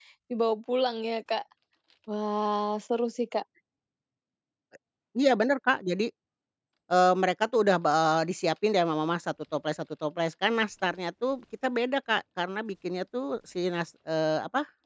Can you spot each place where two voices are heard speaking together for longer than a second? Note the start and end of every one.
none

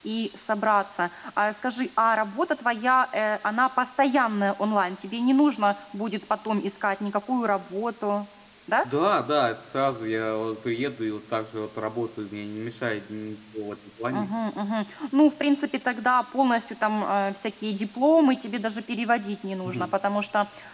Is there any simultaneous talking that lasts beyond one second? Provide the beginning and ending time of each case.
none

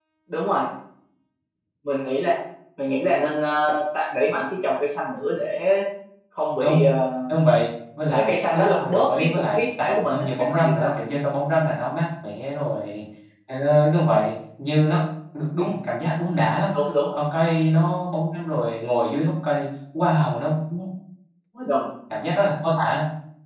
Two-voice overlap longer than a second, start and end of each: 8.1-10.9

